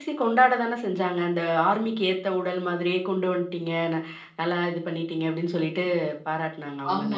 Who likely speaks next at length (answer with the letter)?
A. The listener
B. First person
A